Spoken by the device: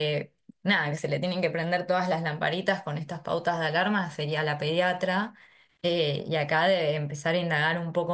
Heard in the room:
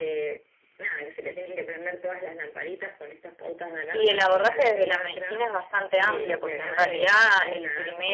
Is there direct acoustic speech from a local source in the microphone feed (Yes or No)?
Yes